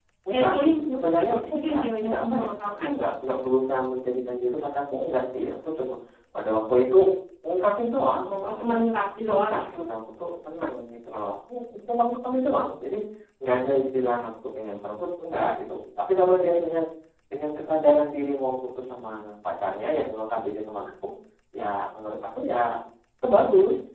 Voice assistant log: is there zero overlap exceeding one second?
No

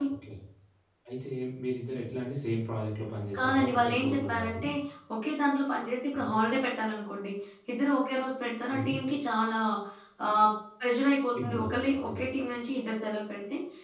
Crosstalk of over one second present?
Yes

